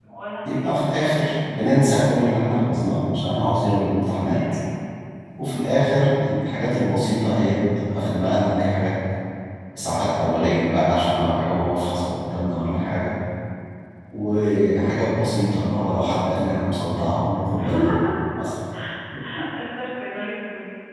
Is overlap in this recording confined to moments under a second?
Yes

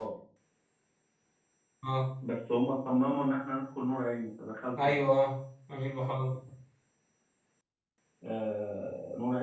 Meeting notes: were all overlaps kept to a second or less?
Yes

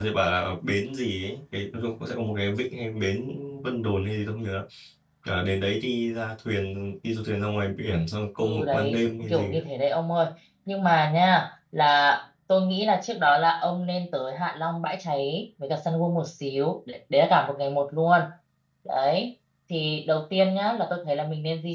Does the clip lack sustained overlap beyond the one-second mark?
No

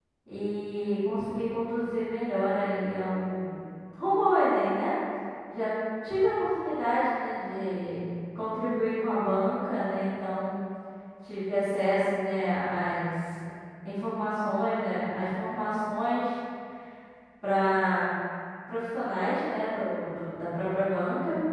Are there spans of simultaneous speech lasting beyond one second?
No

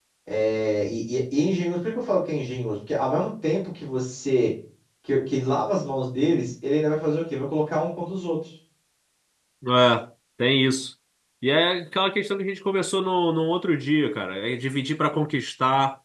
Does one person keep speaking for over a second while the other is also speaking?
No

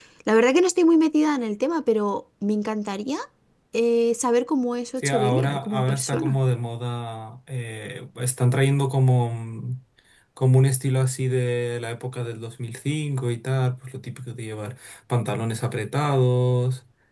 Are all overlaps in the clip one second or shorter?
No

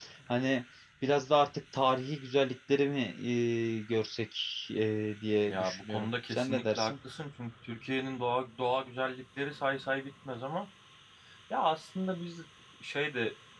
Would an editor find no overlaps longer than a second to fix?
No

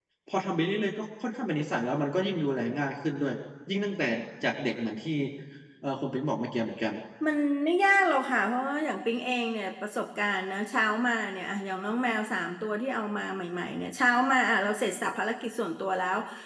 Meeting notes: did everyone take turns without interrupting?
Yes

